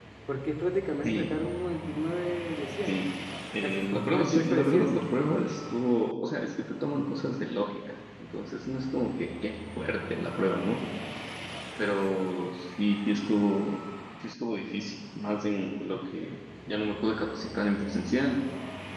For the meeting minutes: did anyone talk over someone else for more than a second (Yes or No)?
Yes